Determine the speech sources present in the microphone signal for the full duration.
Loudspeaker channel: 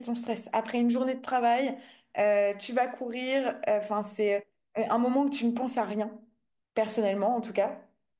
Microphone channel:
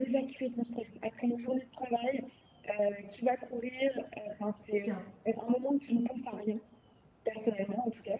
both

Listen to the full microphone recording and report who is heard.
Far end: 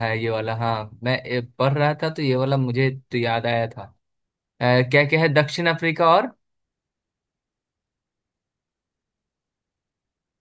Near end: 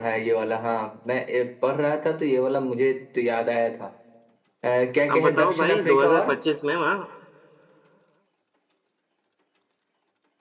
both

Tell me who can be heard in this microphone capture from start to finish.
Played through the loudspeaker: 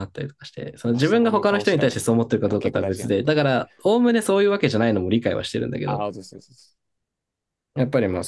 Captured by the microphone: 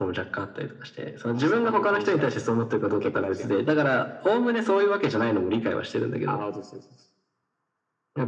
both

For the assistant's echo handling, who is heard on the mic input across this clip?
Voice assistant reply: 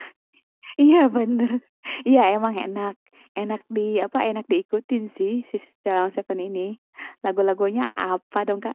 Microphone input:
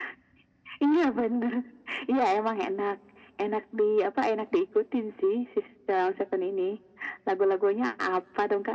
echo only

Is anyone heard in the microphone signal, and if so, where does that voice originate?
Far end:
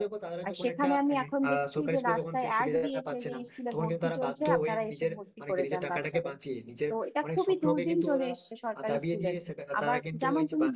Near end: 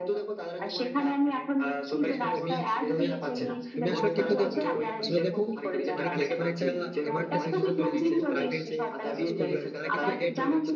both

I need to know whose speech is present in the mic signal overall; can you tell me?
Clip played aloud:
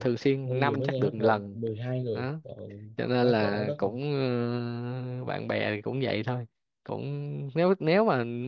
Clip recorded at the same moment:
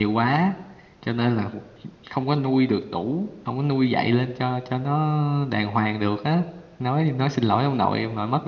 user only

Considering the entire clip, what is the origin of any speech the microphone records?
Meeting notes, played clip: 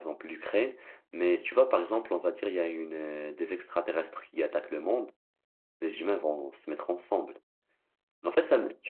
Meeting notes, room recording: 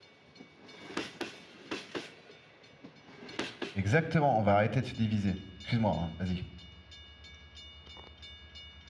user only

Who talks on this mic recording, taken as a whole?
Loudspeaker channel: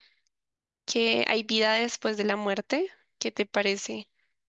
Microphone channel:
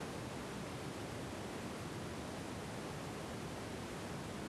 neither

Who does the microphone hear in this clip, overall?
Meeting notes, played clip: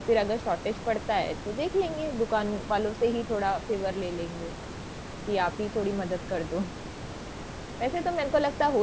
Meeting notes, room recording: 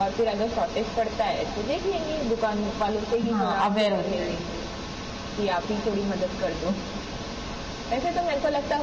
both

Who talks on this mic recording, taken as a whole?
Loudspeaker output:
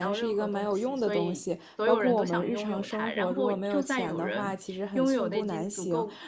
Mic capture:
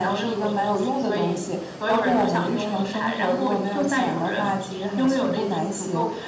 echo only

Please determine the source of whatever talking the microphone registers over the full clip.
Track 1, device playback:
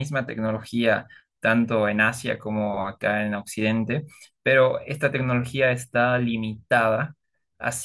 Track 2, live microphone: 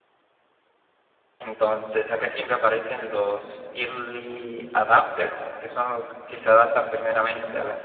user only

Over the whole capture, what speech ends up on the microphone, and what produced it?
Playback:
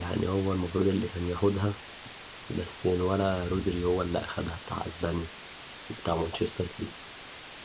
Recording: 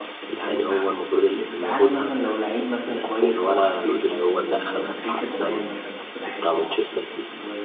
both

